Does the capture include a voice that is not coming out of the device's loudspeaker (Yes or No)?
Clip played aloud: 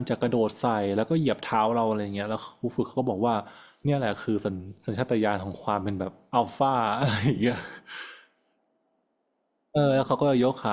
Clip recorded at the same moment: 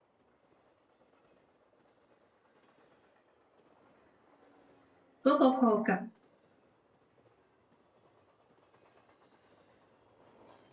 Yes